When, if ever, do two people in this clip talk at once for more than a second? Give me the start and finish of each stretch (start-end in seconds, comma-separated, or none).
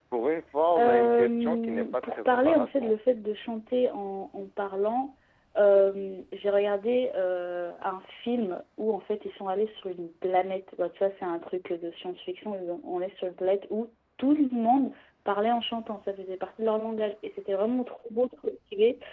0.8-2.9